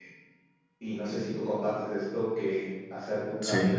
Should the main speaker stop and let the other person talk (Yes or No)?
No